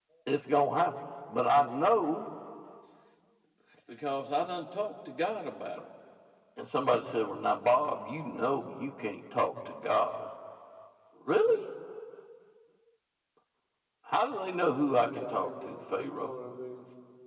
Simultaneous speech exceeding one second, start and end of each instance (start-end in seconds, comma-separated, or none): 15.0-16.3